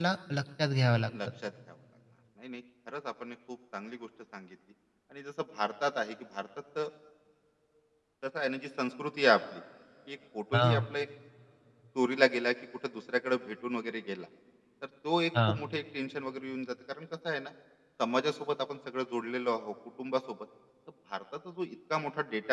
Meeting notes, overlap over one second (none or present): none